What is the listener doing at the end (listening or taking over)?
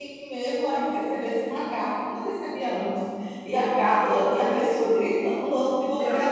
taking over